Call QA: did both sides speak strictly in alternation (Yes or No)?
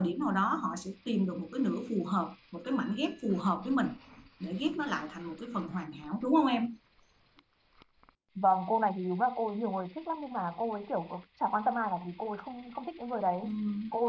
Yes